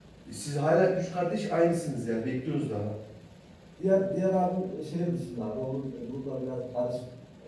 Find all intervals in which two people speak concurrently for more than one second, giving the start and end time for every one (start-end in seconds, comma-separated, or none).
none